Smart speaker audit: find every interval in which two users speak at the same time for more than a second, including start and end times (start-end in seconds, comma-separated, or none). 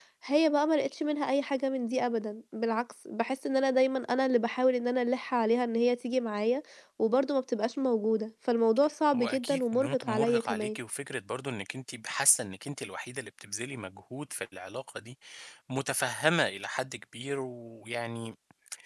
9.1-10.8